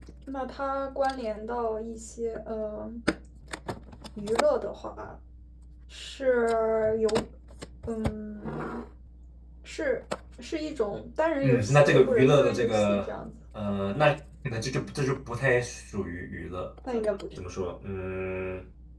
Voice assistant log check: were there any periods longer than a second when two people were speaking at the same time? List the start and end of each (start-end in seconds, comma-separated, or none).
11.4-13.0